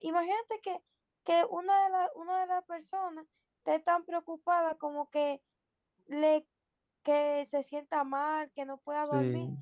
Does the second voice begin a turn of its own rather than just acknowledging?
No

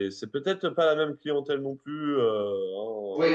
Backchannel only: No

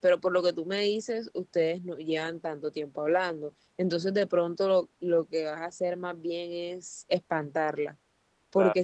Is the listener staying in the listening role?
Yes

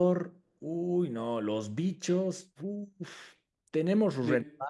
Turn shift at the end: No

